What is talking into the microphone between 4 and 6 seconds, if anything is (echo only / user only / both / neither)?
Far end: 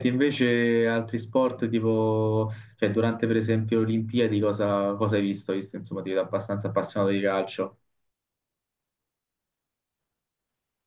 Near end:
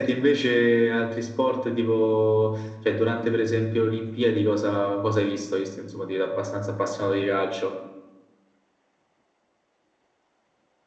echo only